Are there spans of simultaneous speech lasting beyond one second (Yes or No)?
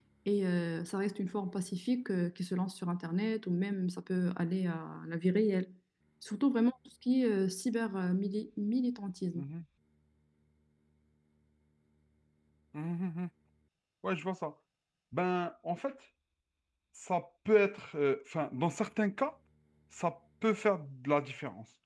No